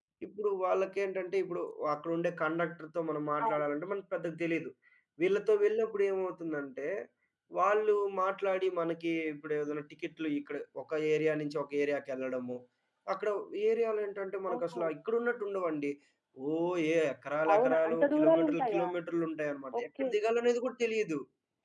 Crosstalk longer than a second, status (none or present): present